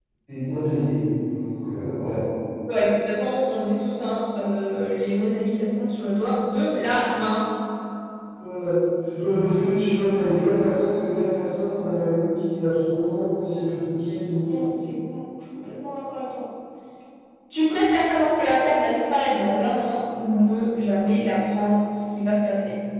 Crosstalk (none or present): none